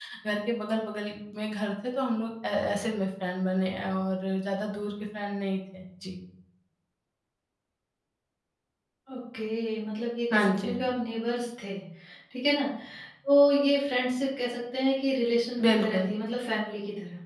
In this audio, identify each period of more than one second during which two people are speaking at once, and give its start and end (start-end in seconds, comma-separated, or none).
none